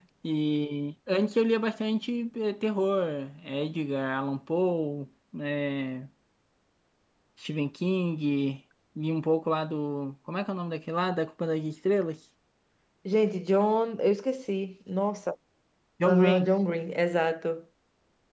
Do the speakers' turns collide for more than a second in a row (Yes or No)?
No